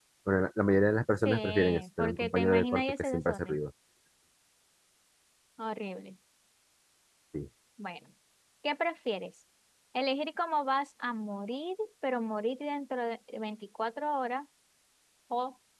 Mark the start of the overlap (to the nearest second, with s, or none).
1 s